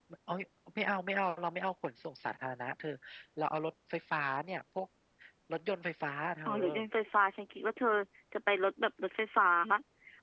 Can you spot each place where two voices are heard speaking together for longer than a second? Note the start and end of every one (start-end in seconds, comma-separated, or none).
none